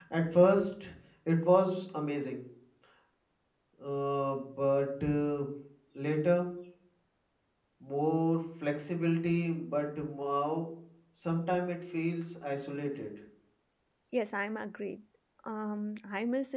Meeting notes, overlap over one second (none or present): none